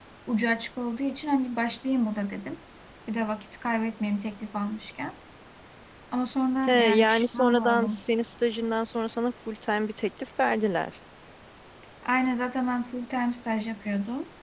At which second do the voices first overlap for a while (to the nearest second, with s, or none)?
7 s